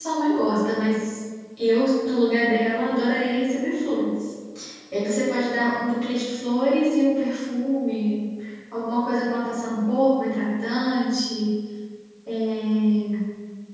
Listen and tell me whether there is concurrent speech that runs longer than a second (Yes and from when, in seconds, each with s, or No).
No